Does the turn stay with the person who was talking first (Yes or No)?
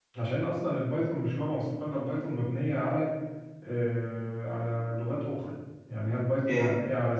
Yes